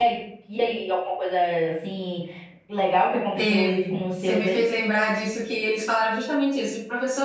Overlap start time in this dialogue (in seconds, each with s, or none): 3.4 s